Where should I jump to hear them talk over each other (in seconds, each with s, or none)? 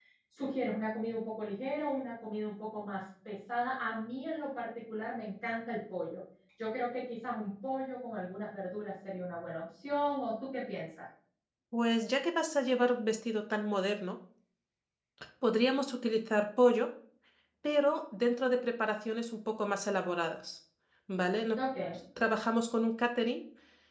none